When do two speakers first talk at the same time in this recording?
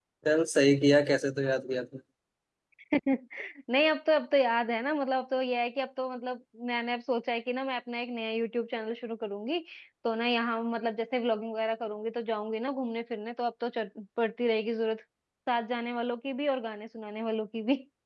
none

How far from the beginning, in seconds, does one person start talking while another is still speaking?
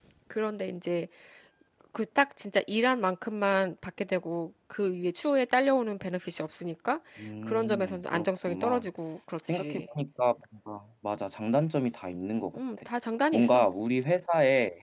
7.5 s

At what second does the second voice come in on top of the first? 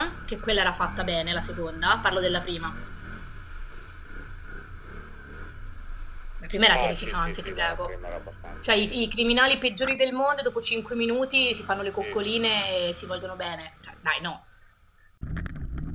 6.7 s

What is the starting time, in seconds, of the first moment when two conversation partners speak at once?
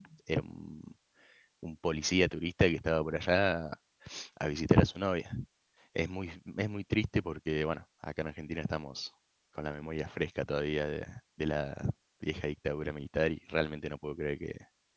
none

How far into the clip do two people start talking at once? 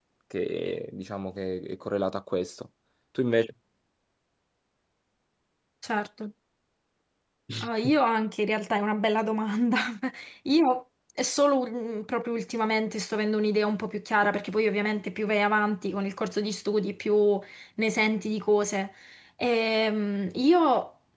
none

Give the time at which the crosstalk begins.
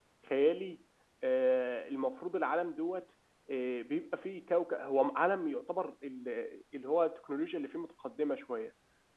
none

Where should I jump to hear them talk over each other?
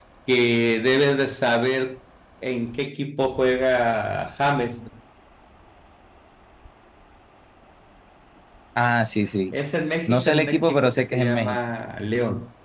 10.1 s

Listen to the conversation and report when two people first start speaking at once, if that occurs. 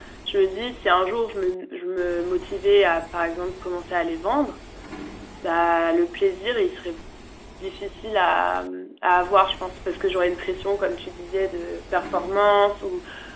none

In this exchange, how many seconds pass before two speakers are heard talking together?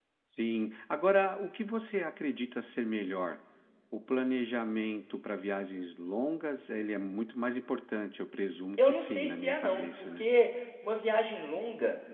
8.8 s

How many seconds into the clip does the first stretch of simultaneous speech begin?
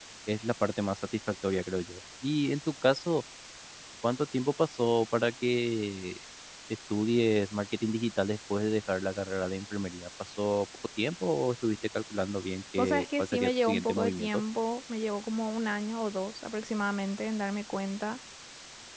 12.8 s

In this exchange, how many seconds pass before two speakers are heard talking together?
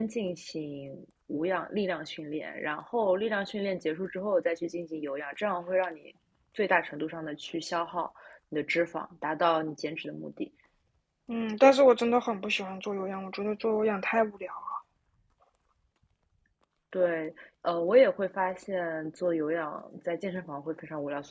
none

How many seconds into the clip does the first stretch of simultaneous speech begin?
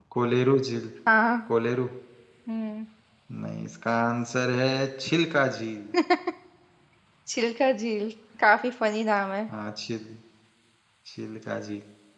none

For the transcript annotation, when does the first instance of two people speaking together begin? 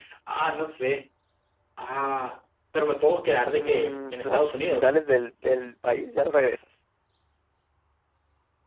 3.6 s

